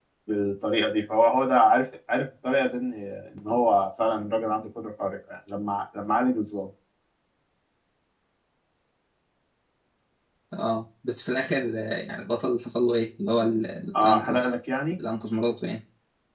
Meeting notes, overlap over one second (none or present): none